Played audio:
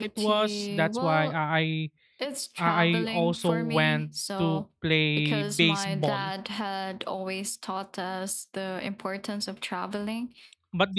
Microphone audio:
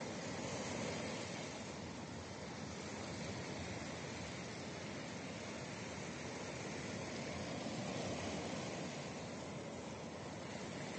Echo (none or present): none